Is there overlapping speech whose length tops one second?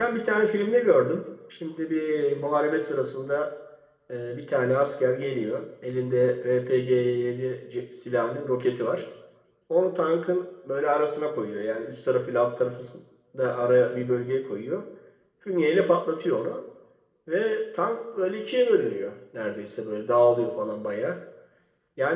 No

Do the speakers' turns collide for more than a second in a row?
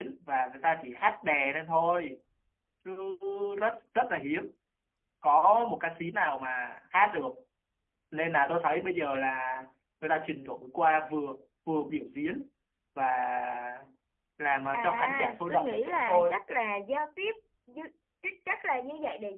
Yes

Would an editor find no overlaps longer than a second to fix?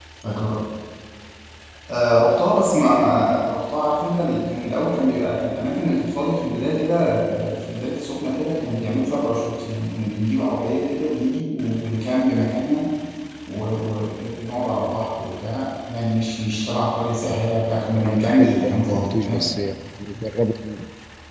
No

